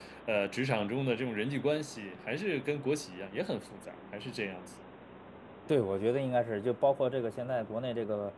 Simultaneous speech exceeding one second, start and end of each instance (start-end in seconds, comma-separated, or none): none